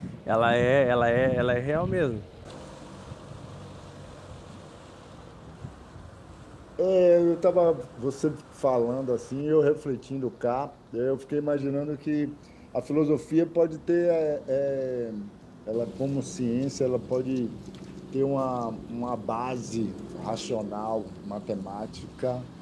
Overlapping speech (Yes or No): No